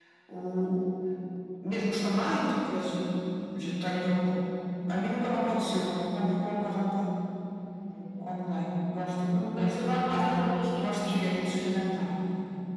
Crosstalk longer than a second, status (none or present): present